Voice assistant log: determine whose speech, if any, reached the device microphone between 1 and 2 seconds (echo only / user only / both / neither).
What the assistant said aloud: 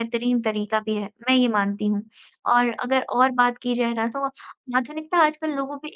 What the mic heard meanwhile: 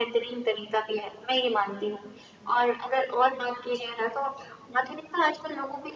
echo only